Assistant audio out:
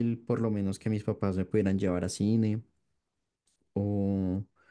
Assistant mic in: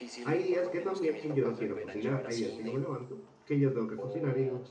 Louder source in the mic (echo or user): user